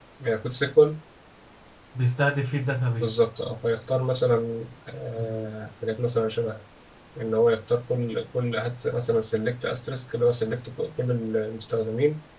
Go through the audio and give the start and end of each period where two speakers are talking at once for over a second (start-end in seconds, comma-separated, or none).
none